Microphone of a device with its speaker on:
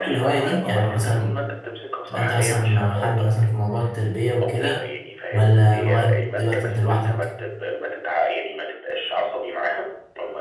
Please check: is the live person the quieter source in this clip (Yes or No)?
No